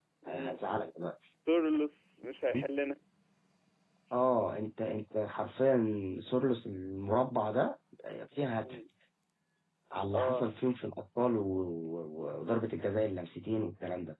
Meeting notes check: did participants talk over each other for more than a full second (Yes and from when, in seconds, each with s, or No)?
No